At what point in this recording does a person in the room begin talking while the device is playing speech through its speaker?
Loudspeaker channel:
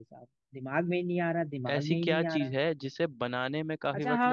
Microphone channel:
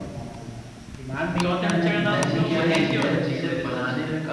1.4 s

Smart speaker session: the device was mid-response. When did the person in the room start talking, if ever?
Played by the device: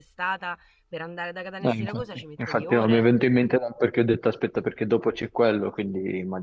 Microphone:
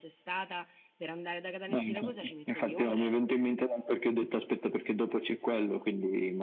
none

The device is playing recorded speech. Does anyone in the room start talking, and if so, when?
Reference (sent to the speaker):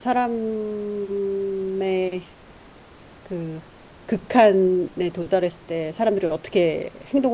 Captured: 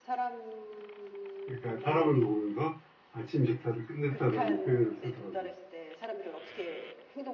1.4 s

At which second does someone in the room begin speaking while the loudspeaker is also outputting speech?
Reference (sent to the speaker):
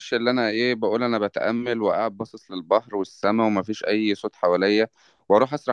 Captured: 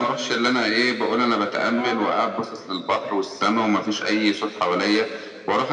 1.8 s

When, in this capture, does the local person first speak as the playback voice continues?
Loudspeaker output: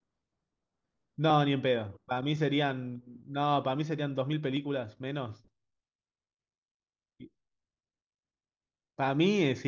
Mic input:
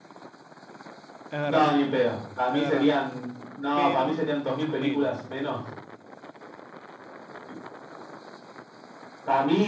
1.3 s

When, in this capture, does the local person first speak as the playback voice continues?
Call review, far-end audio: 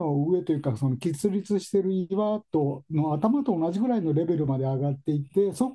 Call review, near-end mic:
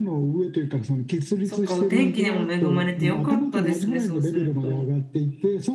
1.4 s

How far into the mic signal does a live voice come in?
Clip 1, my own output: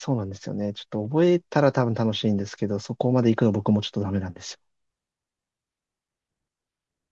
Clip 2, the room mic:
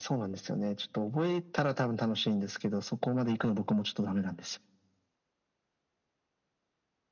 none

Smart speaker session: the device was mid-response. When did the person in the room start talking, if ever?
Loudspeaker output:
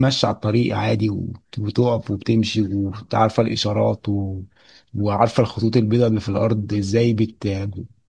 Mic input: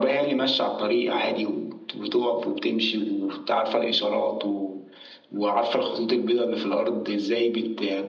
none

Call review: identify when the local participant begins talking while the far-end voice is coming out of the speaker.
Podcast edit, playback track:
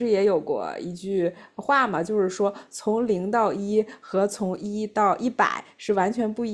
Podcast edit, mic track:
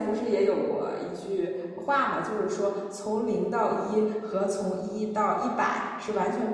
none

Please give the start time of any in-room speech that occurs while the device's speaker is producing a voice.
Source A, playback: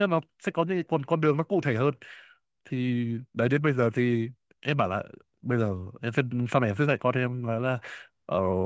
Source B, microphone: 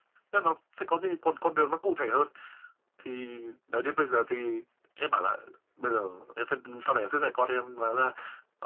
none

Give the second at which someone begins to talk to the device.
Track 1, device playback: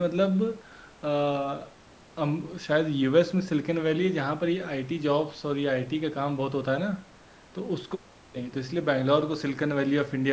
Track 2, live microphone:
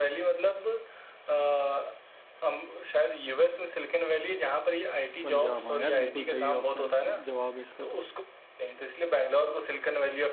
5.2 s

